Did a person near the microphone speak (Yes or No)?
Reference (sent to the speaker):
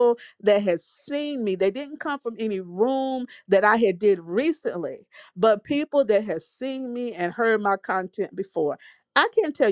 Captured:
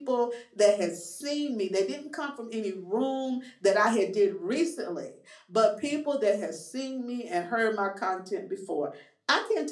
No